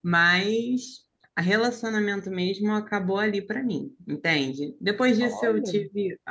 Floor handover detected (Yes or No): No